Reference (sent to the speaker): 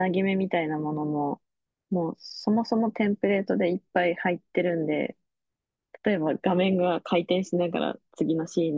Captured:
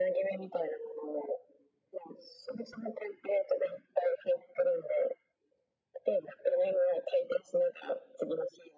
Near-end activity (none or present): none